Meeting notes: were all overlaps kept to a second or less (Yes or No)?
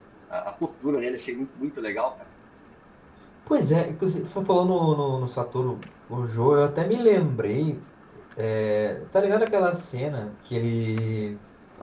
Yes